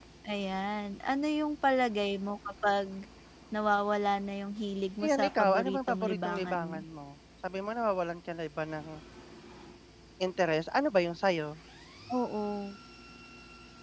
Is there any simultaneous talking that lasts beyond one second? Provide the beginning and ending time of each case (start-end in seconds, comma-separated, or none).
5.0-6.8